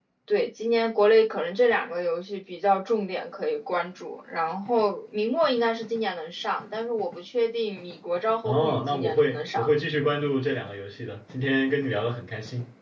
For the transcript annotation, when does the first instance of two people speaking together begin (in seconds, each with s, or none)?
8.4 s